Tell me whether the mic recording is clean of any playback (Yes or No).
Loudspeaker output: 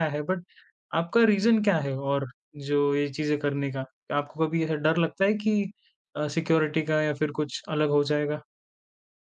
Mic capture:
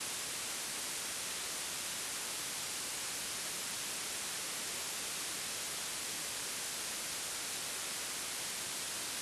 Yes